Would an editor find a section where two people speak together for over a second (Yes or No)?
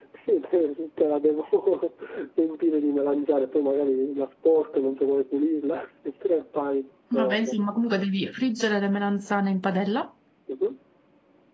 No